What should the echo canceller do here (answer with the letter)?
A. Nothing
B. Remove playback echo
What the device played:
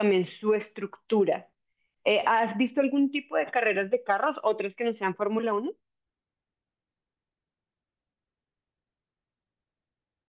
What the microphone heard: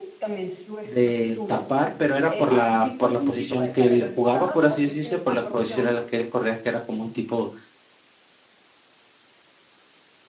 B